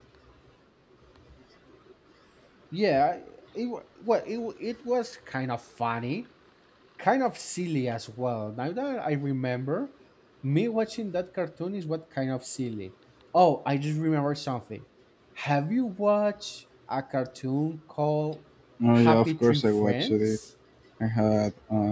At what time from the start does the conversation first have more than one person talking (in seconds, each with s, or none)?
18.9 s